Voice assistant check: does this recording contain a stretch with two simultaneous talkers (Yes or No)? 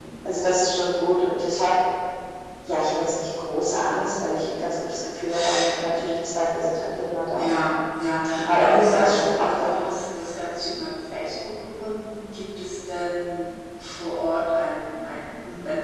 Yes